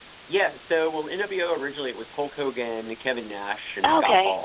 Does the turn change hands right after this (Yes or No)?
No